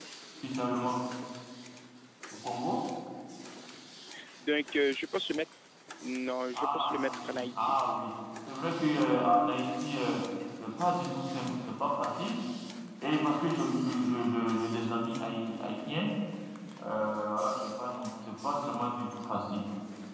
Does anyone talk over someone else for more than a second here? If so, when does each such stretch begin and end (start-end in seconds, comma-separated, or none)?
6.5-7.8